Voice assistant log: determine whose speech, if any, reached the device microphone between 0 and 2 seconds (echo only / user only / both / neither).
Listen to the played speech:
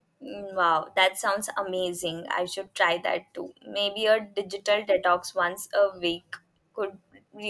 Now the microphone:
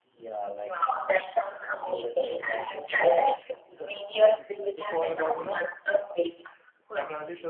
both